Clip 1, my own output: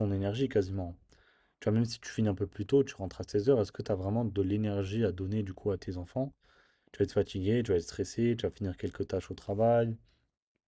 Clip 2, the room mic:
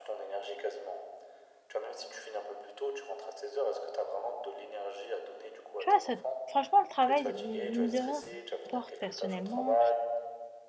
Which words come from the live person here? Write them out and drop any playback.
Tu vois, ça, franchement, le travail, c'est- mine de rien, ça t'apporte personnellement,

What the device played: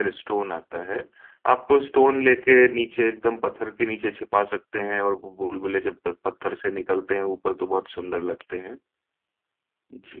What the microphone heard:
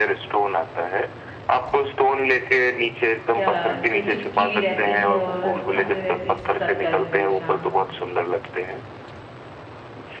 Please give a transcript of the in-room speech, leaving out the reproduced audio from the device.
क्या जो चिपकी भी रहती है और खाते रहती है सक्कर फिश हाँ

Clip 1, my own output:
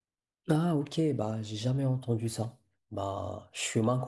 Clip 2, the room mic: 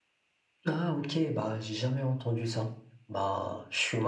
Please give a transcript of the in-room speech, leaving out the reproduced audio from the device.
none

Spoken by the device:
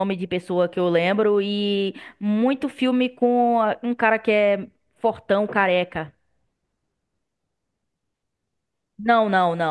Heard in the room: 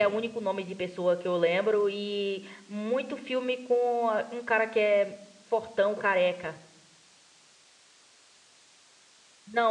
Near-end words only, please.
none

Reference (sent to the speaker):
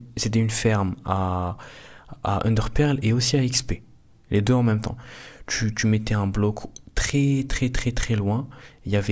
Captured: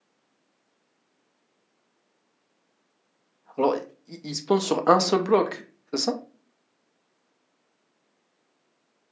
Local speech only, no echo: Alors, ils, ils spawnent sur un seul bloc, c'est ça?

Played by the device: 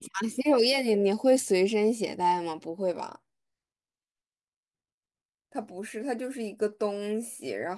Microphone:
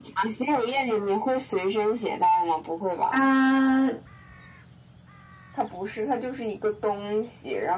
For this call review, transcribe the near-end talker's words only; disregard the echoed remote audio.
它，

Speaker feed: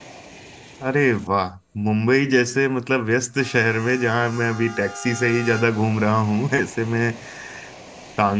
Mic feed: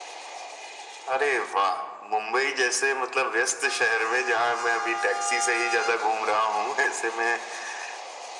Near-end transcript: none

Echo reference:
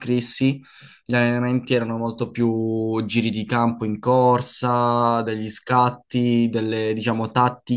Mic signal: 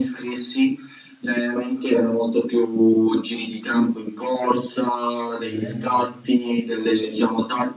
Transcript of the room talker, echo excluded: Mm,

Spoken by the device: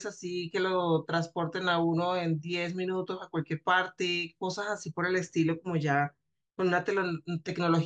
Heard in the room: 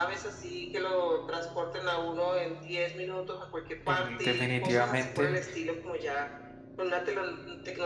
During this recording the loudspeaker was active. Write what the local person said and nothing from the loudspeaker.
Em, definitivamente

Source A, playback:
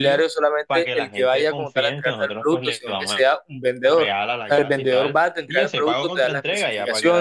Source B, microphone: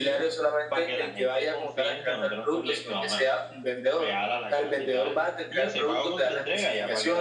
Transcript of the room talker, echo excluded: none

